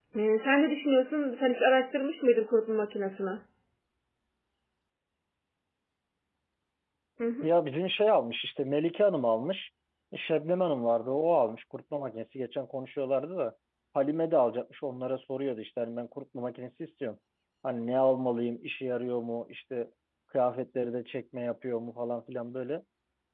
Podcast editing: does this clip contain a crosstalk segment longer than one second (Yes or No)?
No